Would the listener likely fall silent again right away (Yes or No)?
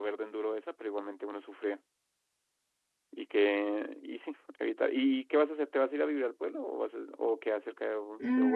No